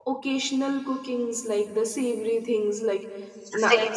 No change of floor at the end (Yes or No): Yes